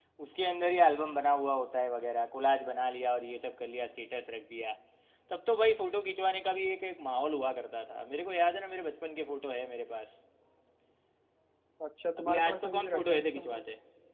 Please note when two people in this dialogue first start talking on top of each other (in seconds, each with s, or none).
12.2 s